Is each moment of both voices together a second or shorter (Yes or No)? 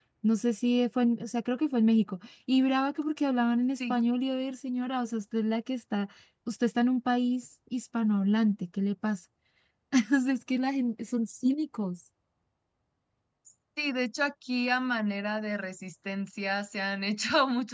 Yes